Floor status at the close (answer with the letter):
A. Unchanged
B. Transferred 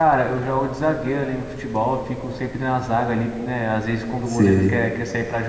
A